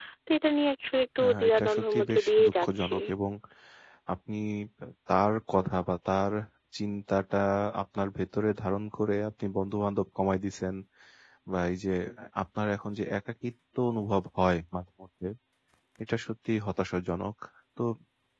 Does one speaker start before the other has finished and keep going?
Yes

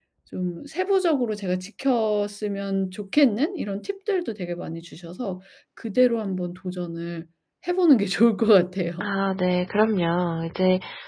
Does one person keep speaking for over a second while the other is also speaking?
No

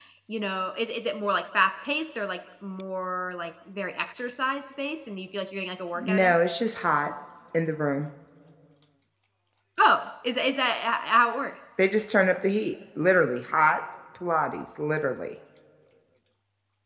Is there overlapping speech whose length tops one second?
No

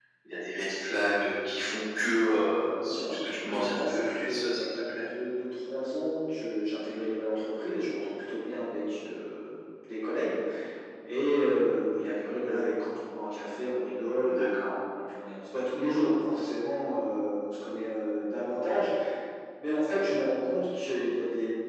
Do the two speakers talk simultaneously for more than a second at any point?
Yes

